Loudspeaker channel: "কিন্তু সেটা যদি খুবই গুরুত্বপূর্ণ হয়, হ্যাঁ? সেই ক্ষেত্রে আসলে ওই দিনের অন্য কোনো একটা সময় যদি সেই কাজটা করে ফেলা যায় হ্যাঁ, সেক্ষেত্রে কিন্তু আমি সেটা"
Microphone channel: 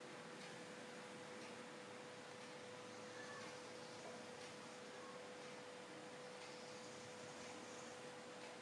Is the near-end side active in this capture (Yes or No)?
No